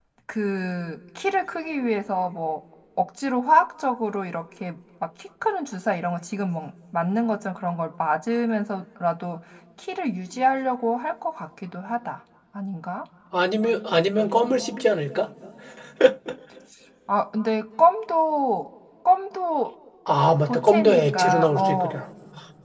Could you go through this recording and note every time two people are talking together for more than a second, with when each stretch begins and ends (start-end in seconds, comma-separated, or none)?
20.5-22.0